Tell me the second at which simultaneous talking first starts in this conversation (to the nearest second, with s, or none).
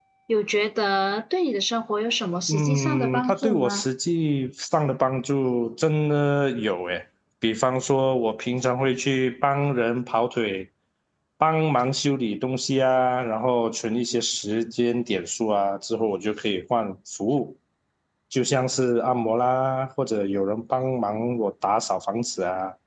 2 s